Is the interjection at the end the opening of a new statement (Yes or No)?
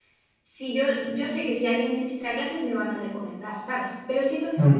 No